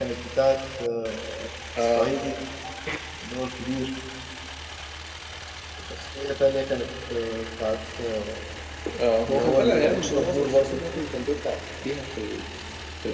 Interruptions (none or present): present